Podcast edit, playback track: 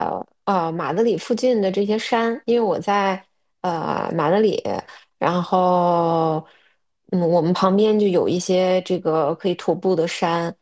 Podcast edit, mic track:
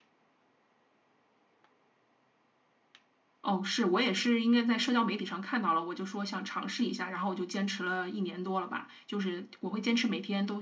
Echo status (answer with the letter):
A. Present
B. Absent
B